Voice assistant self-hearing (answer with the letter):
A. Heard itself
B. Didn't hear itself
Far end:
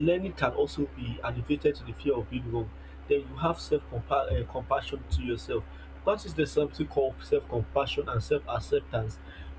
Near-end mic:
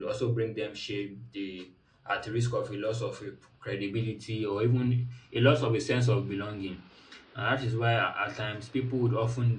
B